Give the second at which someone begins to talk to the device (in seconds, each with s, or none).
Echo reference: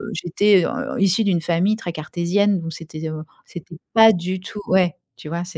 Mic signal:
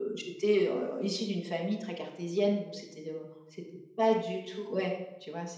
none